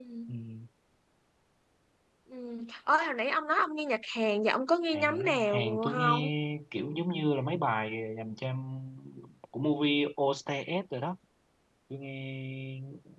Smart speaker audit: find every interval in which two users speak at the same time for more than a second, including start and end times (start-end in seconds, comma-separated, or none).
4.9-6.3